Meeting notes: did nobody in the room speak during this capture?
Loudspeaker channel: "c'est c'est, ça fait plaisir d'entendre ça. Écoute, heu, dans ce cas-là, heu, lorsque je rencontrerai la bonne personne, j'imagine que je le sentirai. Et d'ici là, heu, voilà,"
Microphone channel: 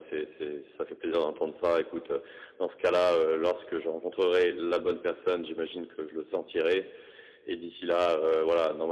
Yes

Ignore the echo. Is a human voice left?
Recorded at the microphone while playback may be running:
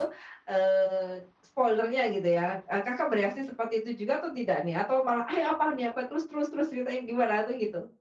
Yes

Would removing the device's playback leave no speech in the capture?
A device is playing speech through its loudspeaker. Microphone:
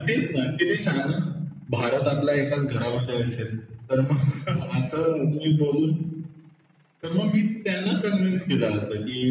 Yes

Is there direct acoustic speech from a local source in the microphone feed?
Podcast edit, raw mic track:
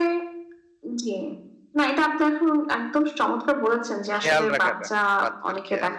Yes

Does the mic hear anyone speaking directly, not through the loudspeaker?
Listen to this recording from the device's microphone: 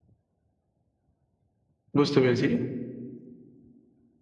Yes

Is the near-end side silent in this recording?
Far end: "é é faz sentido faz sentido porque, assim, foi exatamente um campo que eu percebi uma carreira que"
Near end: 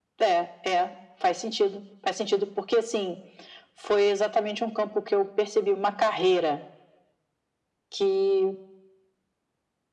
Yes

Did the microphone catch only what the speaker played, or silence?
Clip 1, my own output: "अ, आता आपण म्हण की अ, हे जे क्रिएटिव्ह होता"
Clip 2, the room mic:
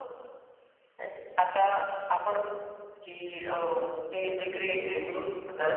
No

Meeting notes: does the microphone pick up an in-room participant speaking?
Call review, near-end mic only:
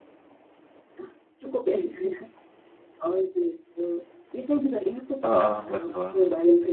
Yes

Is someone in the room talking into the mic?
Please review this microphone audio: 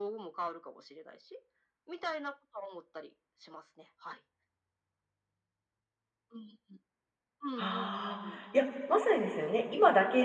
Yes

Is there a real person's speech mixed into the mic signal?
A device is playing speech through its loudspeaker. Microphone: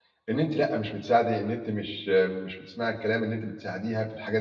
Yes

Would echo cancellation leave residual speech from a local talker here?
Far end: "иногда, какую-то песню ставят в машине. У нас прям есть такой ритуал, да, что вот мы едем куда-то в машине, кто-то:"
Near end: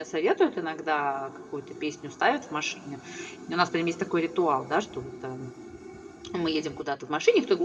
No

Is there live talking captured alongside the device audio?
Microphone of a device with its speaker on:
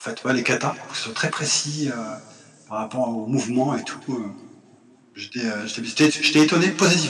Yes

